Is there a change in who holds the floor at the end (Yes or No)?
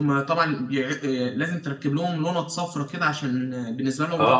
Yes